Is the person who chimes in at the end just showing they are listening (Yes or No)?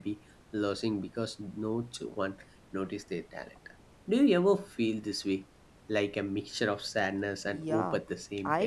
No